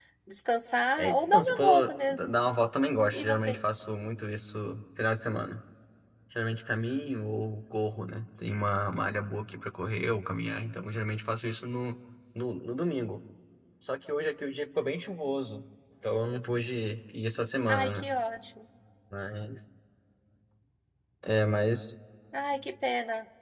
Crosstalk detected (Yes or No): Yes